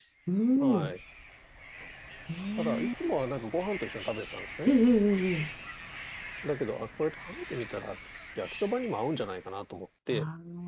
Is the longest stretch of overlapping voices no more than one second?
Yes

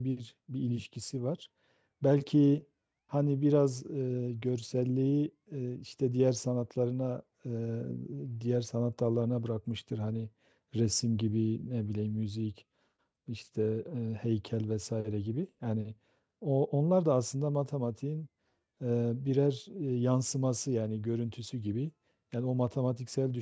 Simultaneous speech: No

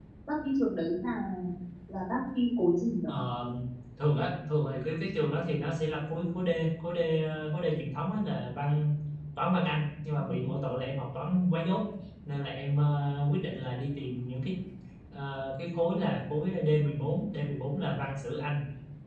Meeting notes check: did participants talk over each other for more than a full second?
No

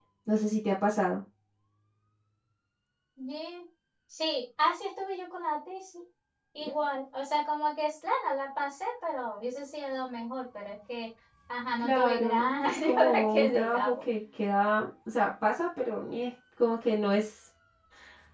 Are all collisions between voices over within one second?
No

